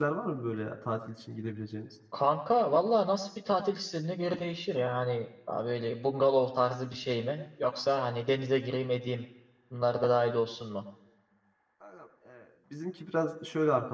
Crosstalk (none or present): none